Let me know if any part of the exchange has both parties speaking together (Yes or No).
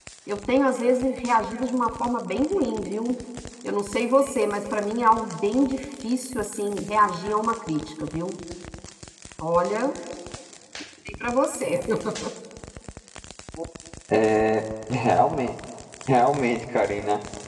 No